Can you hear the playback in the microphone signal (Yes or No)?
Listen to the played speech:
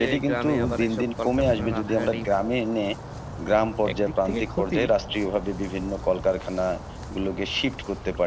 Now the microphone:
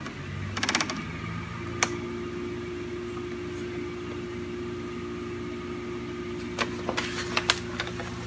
No